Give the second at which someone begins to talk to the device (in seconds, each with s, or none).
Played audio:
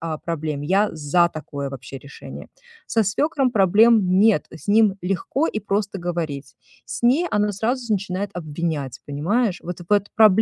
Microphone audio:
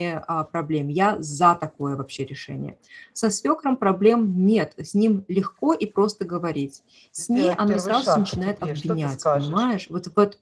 7.2 s